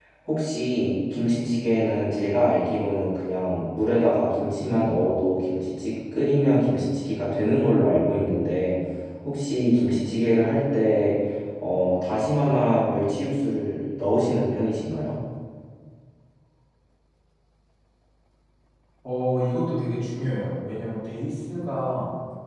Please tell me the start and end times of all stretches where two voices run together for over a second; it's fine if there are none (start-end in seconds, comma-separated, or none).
none